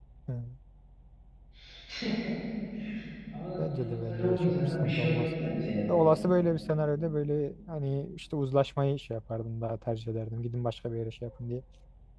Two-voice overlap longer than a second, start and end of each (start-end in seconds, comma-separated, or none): 3.6-5.3